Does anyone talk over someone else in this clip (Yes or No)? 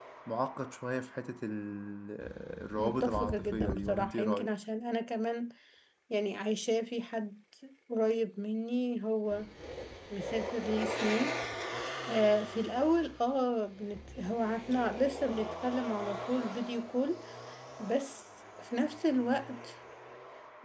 Yes